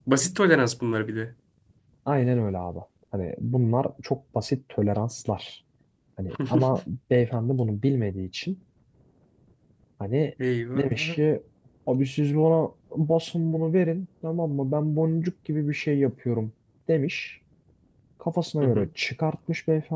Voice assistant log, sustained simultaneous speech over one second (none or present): none